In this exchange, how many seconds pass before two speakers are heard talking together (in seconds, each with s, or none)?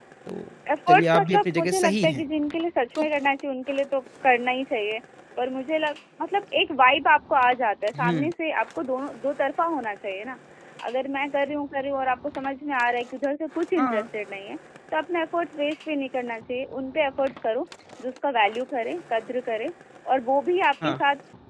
0.9 s